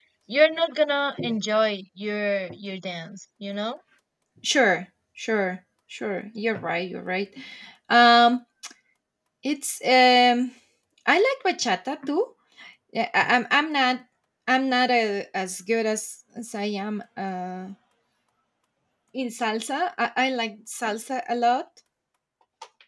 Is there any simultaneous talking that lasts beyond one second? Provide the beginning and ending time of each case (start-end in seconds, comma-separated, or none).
none